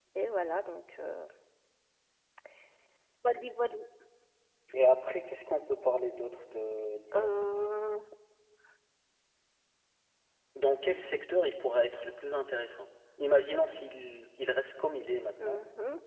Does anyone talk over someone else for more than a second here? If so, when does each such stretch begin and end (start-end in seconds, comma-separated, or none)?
none